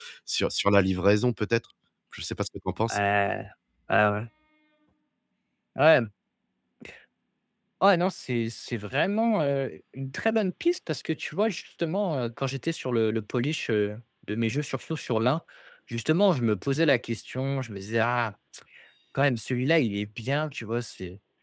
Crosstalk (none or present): none